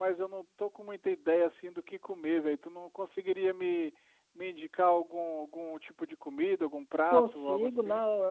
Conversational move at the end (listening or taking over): taking over